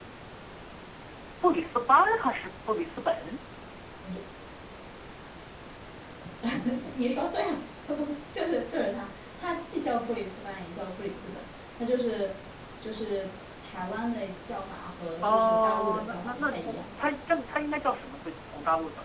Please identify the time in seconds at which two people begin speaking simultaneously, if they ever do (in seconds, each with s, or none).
15.2 s